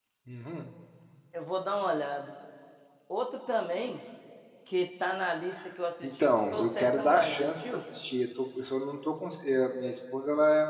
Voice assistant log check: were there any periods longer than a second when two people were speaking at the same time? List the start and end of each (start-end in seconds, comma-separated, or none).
6.0-7.6